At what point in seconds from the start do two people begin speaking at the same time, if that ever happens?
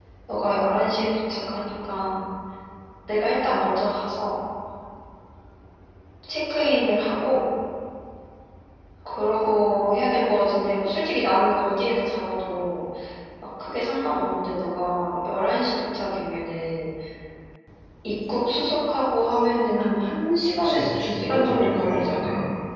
20.6 s

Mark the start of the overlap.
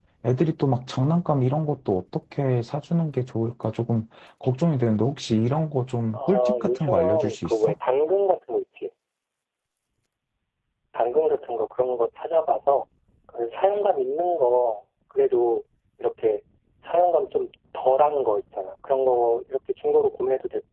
6.1 s

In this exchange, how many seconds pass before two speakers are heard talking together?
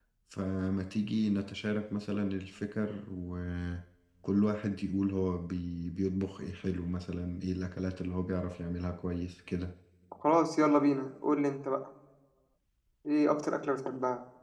none

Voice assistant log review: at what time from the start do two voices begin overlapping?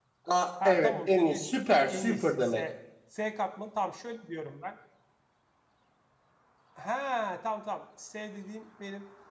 0.7 s

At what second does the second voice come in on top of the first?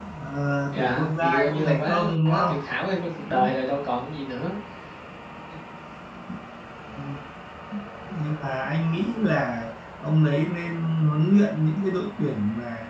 0.7 s

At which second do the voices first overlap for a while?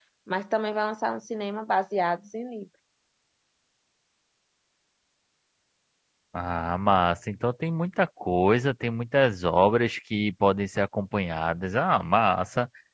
none

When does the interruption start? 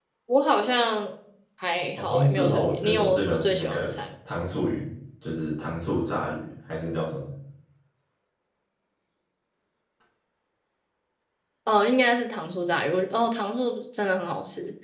1.9 s

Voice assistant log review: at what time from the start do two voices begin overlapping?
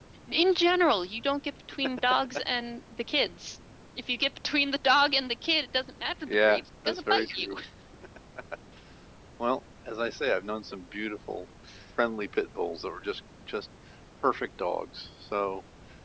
6.3 s

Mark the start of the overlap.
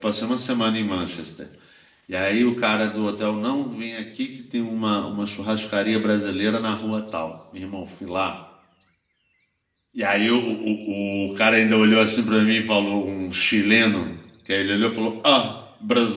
none

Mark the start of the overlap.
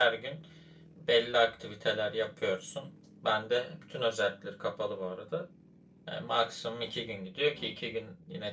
none

